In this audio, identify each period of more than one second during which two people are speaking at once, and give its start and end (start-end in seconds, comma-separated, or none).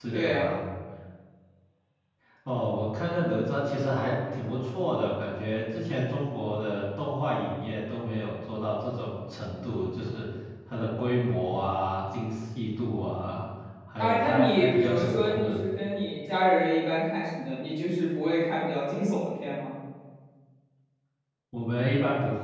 14.0-15.6